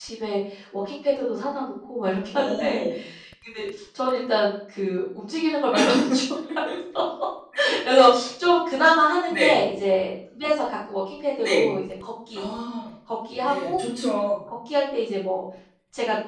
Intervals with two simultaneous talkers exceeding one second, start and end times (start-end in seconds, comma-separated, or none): none